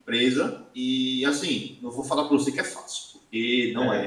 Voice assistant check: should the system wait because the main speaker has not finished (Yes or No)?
Yes